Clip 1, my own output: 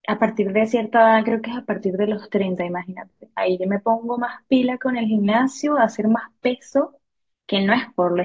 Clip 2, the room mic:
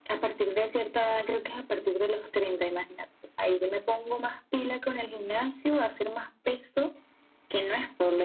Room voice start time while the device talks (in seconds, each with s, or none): none